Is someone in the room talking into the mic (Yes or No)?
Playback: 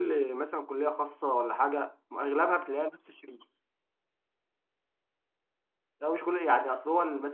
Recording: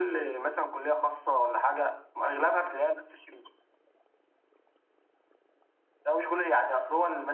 No